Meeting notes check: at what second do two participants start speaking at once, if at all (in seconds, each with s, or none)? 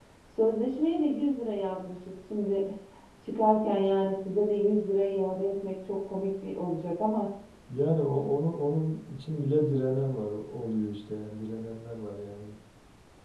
none